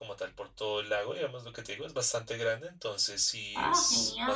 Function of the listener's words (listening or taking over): listening